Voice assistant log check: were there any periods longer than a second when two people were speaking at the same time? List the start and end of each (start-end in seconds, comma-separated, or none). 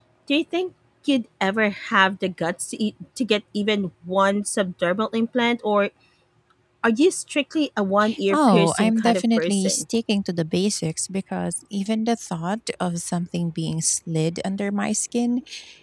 8.3-9.8